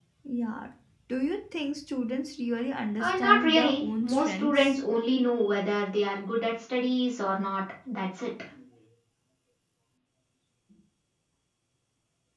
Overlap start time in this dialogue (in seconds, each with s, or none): 3.0 s